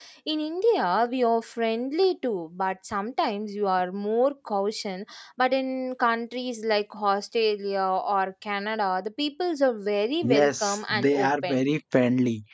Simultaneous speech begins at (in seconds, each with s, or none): 10.2 s